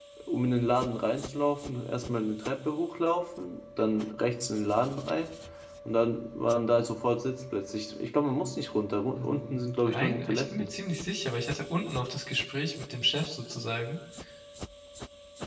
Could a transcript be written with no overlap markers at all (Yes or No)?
No